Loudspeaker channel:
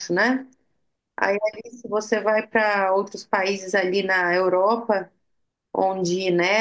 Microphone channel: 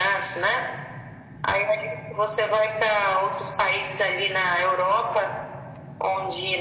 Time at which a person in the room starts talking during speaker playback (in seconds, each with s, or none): none